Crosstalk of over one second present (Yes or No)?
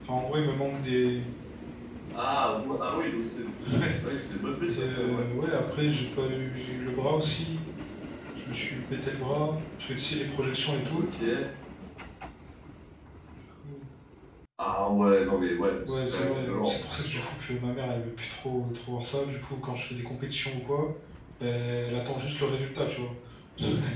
Yes